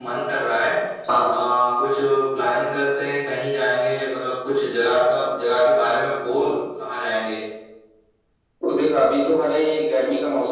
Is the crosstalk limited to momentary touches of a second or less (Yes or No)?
Yes